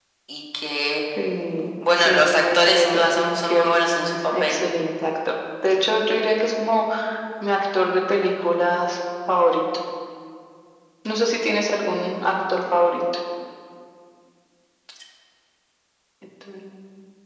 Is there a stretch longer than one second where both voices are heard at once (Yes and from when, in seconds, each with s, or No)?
Yes, from 2.0 s